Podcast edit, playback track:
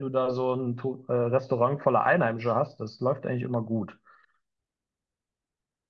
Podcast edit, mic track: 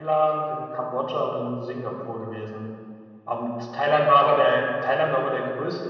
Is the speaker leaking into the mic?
No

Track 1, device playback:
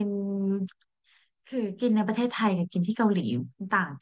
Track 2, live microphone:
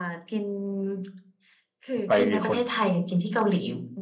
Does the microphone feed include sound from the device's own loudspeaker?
Yes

